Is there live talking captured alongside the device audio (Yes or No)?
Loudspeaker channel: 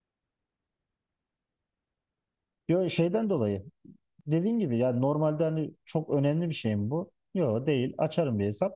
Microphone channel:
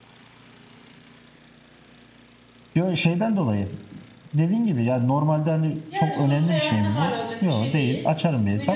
Yes